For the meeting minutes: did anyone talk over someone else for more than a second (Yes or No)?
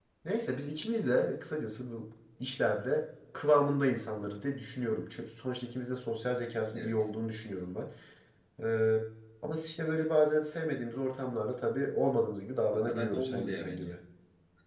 Yes